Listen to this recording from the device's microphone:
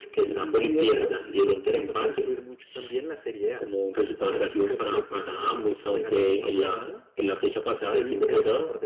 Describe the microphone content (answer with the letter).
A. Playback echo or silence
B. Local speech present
A